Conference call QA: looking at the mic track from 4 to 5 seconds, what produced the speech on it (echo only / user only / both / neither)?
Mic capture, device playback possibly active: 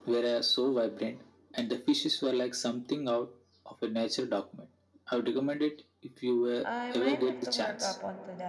echo only